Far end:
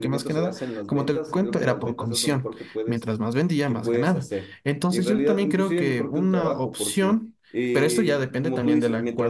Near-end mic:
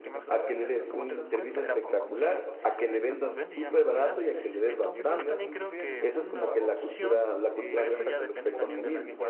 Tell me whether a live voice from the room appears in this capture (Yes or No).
Yes